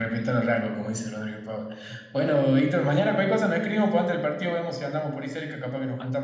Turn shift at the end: No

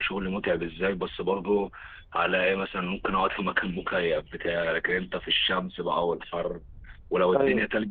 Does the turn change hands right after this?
No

